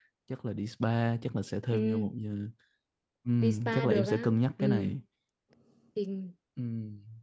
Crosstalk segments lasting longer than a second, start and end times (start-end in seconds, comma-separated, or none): 3.4-5.0